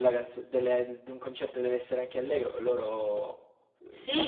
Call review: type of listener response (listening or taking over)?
taking over